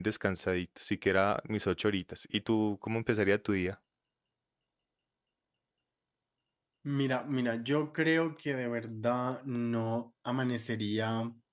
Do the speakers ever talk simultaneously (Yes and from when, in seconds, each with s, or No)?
No